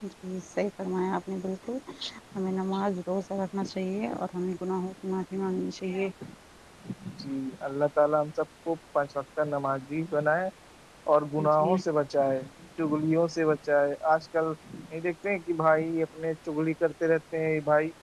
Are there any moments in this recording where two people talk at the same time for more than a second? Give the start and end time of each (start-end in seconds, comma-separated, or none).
none